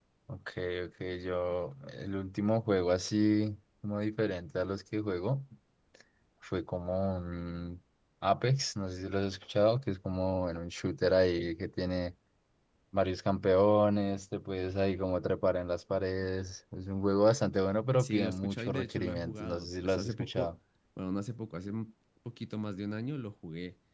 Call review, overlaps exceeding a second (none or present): present